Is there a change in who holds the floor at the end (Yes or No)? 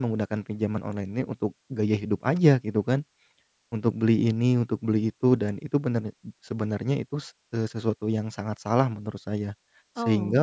No